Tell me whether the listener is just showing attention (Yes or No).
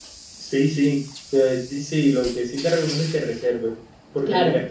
Yes